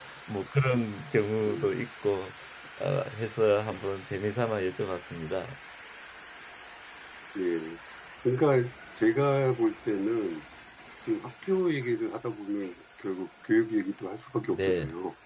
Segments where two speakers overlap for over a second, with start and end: none

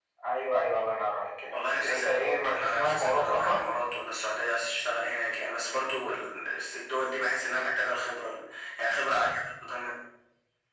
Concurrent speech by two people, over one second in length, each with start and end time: 1.5-3.6

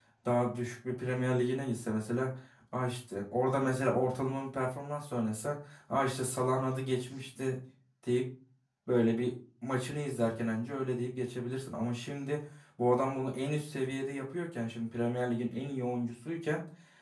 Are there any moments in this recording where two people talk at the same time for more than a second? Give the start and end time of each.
none

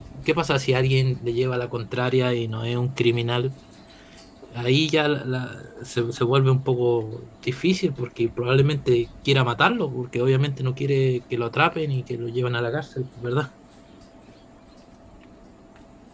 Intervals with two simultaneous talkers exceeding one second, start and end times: none

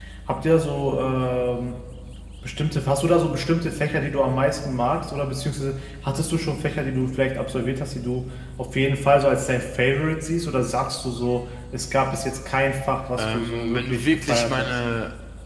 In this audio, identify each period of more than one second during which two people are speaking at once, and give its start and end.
13.2-14.8

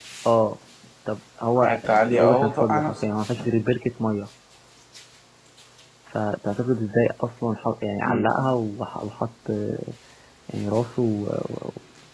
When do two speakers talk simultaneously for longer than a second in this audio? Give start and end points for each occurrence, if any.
1.6-2.9

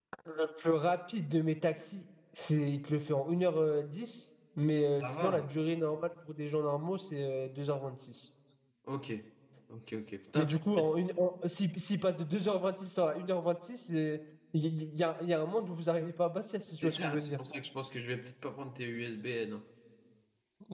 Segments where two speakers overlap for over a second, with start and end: none

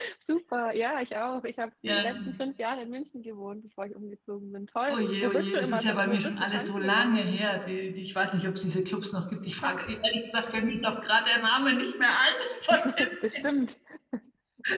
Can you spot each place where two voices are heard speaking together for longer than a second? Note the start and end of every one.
4.9-7.6

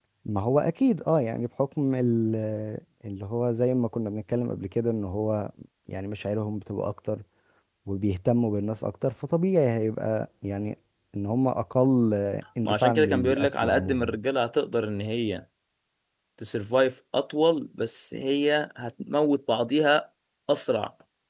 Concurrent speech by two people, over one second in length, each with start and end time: 12.6-14.2

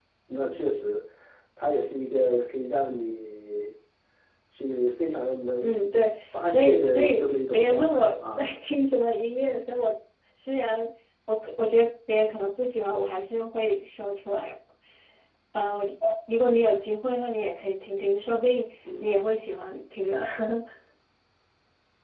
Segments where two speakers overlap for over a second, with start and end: 6.4-8.5

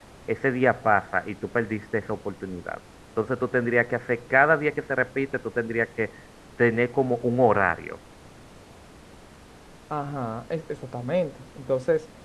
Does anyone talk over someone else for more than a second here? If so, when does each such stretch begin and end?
none

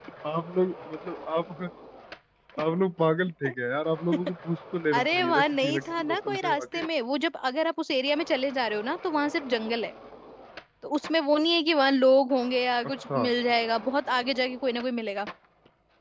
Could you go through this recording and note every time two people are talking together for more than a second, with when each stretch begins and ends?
4.9-6.8

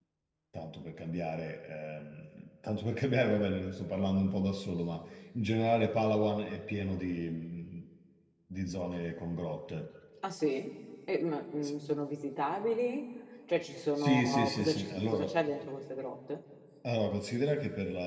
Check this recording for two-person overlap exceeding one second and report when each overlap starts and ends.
14.0-15.2

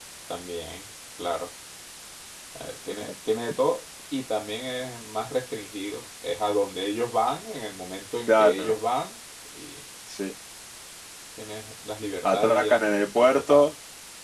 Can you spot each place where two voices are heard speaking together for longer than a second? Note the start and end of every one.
12.2-13.7

